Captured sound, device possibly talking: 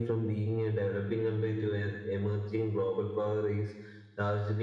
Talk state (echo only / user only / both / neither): echo only